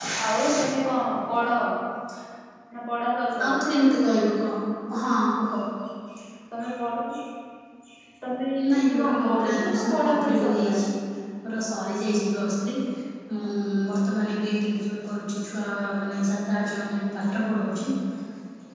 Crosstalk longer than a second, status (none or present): present